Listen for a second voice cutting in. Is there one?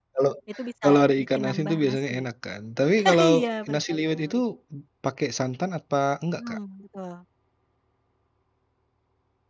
Yes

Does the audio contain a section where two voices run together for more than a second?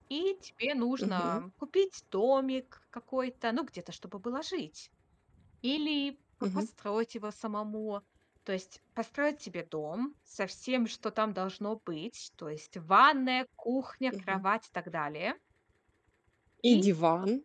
No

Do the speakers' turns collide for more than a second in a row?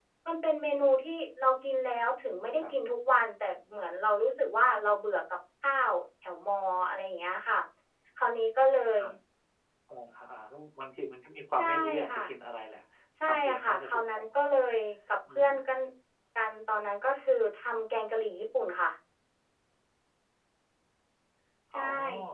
Yes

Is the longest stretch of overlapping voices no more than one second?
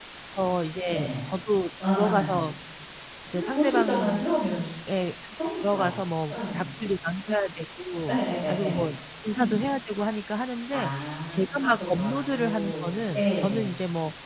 No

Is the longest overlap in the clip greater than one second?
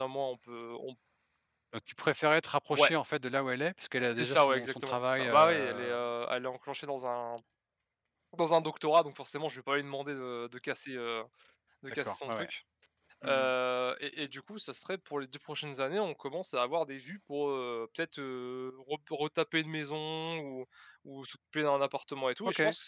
Yes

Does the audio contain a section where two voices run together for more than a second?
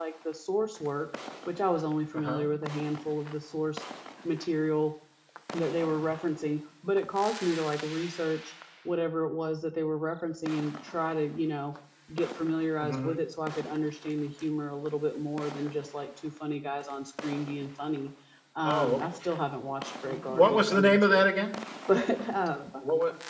Yes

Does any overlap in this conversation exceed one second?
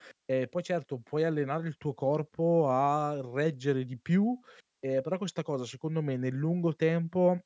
No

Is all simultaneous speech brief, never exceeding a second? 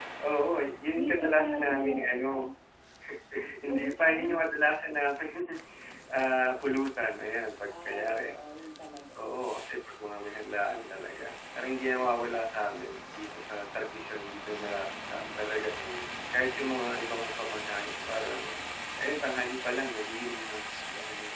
No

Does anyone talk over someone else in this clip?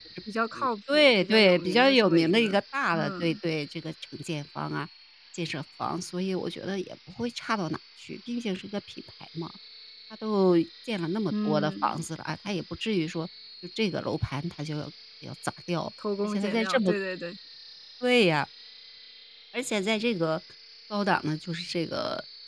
Yes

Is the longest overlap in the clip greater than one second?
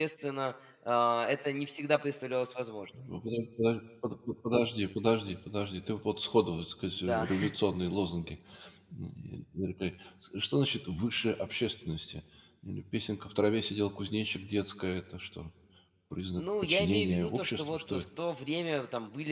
Yes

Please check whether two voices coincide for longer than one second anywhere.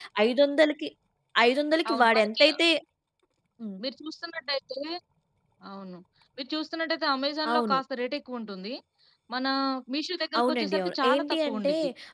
Yes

